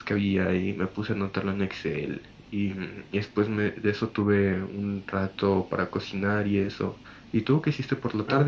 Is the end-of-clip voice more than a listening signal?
Yes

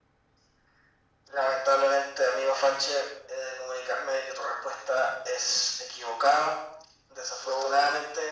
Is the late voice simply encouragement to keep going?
Yes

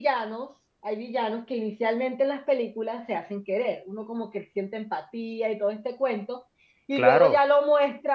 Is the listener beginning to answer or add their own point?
No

